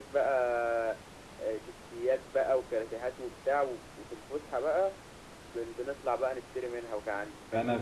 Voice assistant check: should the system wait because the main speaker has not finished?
No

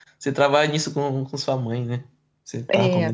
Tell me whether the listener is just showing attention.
No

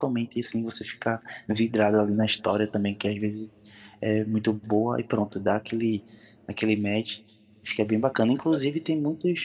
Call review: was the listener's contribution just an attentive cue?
Yes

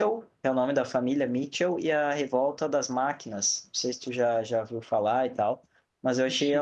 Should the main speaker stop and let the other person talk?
No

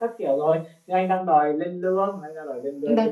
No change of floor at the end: No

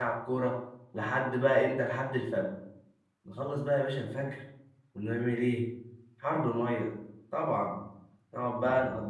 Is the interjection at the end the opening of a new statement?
No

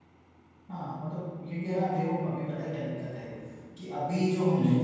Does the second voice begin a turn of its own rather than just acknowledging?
No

